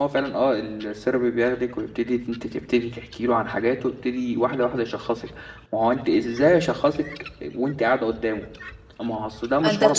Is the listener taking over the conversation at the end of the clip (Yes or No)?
Yes